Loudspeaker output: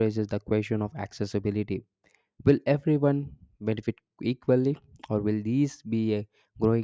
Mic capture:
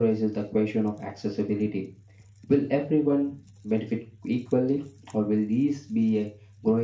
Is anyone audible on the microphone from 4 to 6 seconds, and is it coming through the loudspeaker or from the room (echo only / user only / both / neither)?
echo only